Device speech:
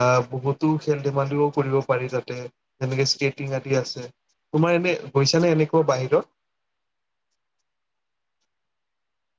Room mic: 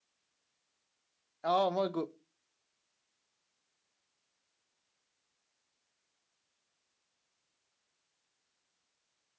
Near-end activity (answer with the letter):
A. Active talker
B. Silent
A